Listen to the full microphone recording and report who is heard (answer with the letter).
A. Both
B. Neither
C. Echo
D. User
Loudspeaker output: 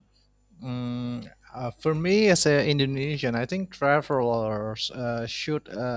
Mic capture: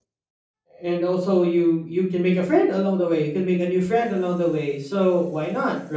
D